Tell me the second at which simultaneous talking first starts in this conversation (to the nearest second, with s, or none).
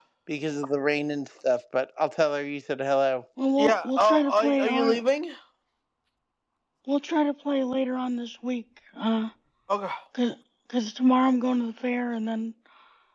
4 s